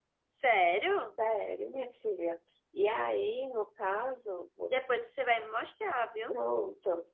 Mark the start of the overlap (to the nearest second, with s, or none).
none